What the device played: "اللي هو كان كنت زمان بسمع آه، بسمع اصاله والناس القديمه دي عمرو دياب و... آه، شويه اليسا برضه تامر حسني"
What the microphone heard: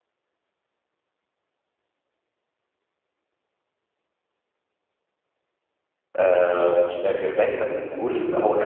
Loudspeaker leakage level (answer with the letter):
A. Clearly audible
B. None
B